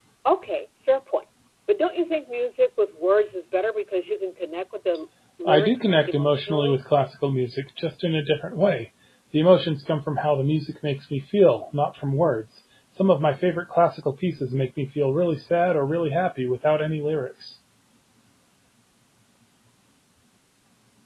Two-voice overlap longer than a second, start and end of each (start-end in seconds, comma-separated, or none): 5.5-6.8